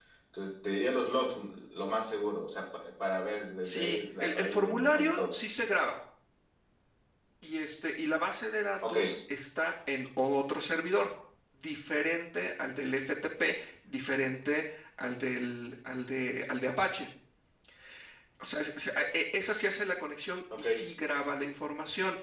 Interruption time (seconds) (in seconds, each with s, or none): 3.6 s